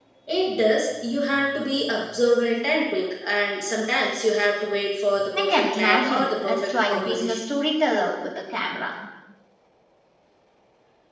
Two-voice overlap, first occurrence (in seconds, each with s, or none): 5.3 s